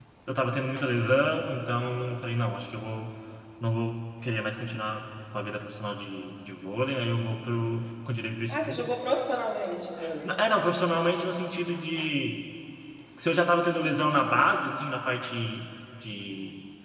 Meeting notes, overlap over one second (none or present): none